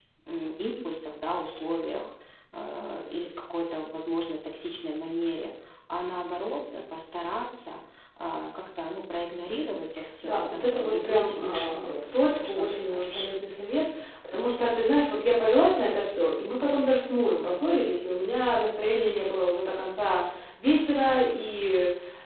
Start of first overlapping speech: 10.2 s

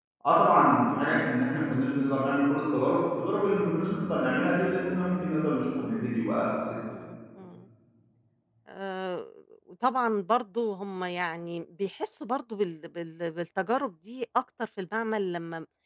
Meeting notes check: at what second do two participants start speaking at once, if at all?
none

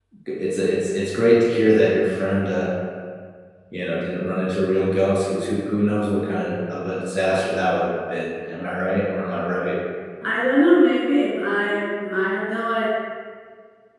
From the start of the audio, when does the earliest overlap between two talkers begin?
none

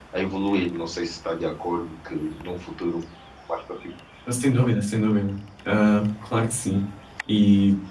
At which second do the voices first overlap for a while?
none

